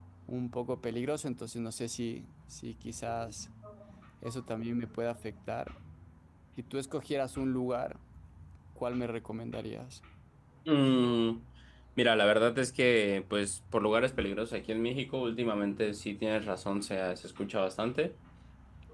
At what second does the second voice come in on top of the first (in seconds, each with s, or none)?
none